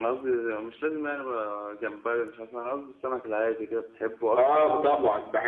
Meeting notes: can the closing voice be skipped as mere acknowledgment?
No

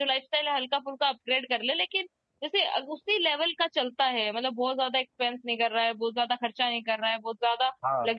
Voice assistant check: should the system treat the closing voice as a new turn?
No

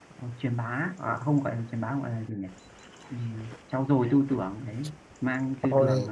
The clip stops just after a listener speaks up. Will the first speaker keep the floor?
Yes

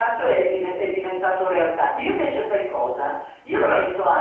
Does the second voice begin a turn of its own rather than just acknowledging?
No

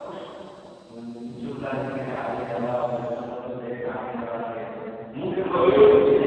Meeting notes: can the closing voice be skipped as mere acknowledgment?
Yes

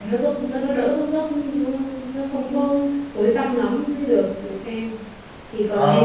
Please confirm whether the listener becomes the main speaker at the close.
Yes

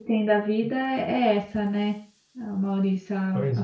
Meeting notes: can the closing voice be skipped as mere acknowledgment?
Yes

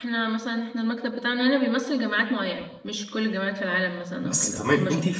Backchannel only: No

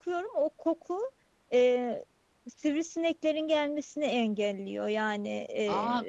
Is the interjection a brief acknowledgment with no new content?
No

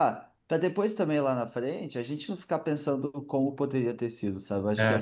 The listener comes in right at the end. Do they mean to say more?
No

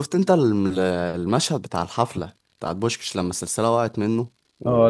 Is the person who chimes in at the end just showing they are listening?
No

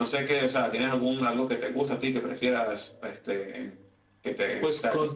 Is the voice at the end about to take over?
Yes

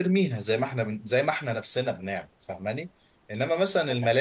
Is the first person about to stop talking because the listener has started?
No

